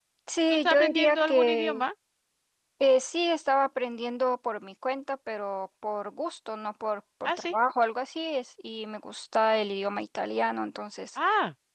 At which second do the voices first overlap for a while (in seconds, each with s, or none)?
0.5 s